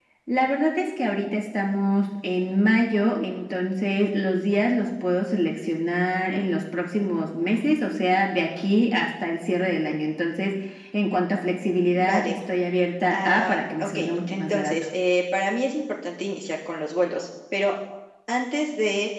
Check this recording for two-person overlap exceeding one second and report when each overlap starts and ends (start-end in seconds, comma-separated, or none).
13.1-14.7